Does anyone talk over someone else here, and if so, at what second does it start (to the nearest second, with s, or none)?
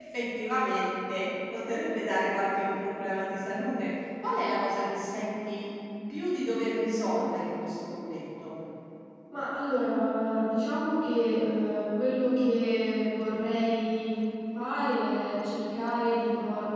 none